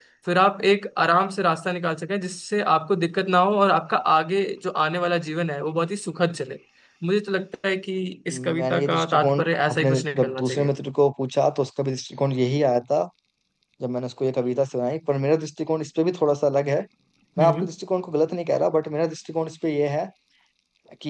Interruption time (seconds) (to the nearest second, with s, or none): 8 s